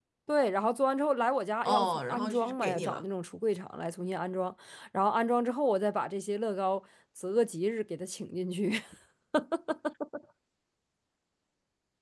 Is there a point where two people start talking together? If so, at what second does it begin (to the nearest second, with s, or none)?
2 s